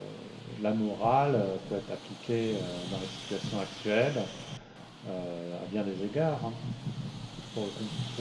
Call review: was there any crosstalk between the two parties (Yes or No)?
No